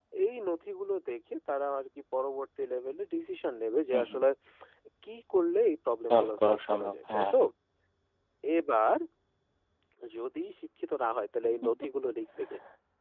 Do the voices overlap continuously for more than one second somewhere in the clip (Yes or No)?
Yes